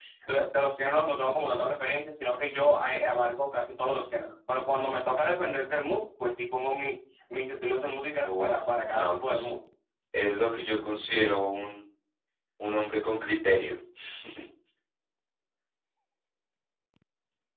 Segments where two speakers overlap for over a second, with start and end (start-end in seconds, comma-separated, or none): 8.2-9.5